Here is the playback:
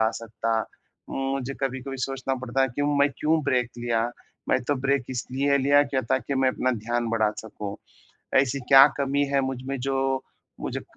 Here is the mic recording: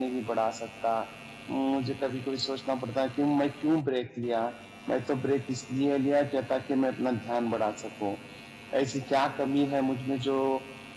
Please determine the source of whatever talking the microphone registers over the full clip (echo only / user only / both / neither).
echo only